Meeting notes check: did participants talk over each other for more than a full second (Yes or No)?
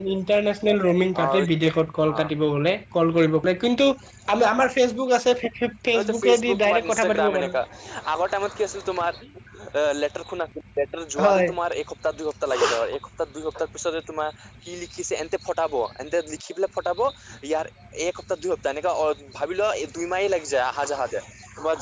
Yes